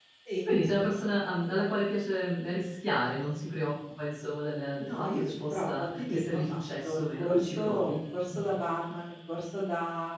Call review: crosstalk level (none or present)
present